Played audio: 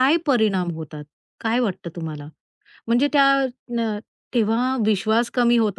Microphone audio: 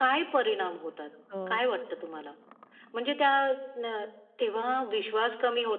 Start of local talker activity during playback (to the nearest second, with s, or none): 1 s